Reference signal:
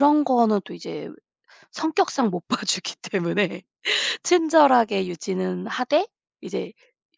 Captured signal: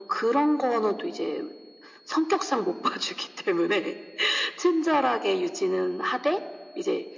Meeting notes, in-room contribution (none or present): none